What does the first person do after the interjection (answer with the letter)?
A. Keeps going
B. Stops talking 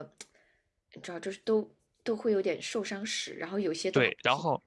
B